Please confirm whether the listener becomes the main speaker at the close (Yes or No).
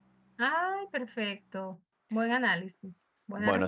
Yes